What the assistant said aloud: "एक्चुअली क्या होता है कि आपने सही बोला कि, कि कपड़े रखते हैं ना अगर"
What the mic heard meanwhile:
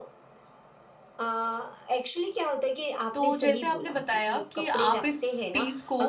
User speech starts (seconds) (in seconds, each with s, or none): 3.1 s